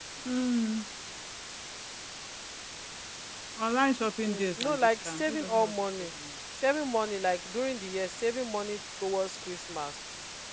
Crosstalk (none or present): present